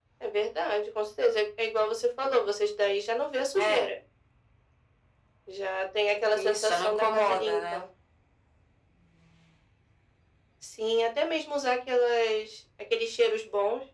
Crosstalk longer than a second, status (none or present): present